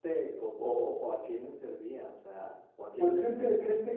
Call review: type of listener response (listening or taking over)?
taking over